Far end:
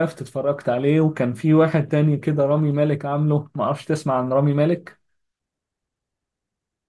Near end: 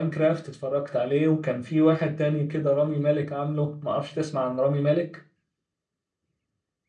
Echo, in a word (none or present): present